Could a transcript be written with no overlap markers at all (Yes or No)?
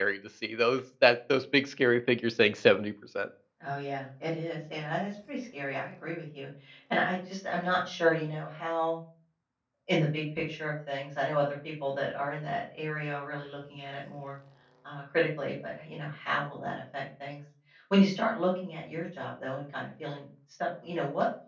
Yes